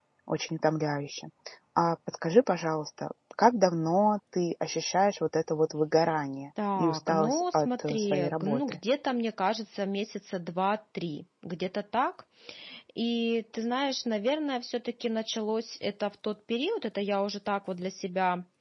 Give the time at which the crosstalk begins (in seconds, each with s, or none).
6.6 s